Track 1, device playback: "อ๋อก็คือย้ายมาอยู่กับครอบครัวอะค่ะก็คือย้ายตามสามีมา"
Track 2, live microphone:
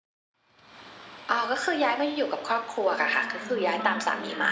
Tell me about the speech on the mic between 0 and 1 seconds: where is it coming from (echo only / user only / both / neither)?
neither